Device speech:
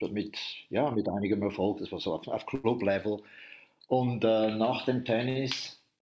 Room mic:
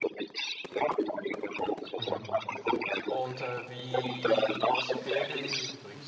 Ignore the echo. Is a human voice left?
Yes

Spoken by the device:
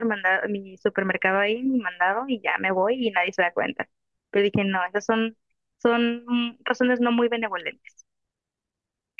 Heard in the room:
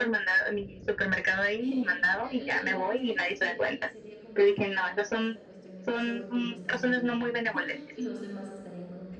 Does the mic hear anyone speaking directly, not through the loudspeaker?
Yes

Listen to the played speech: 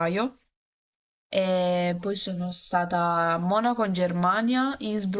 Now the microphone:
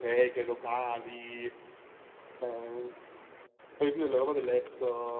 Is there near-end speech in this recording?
Yes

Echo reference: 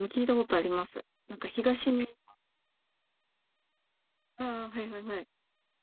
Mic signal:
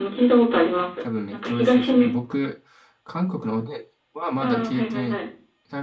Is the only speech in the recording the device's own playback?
No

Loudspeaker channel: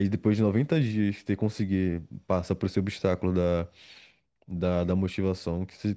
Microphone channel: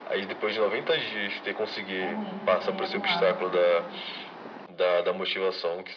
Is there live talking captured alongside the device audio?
Yes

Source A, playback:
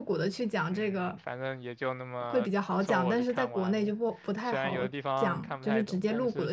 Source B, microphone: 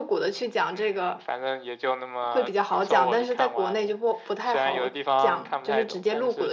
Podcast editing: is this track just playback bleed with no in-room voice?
Yes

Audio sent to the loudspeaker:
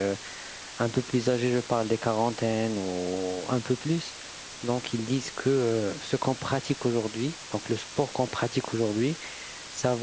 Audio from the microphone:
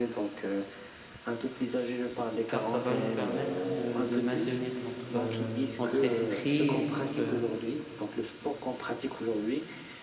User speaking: Yes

